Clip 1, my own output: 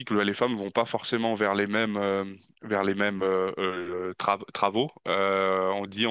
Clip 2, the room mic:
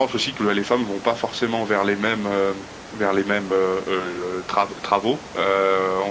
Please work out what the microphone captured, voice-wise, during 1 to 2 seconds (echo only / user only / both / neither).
echo only